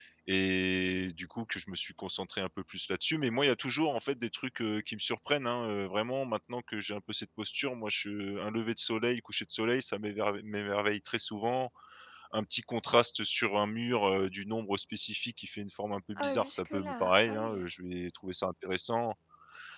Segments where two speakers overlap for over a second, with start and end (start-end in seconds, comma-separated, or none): 16.1-17.6